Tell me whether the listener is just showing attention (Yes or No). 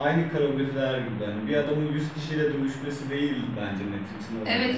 No